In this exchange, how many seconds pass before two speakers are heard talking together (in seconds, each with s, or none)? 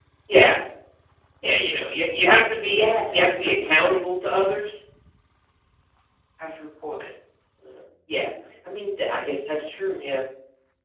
2.7 s